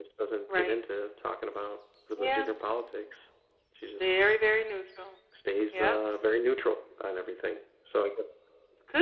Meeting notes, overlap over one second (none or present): none